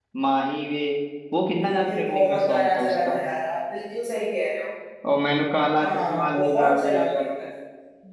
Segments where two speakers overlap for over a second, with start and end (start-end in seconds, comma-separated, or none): 1.6-3.2, 5.8-7.4